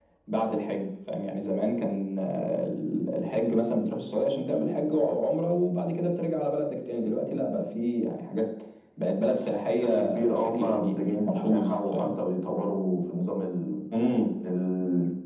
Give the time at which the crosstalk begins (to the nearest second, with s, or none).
10 s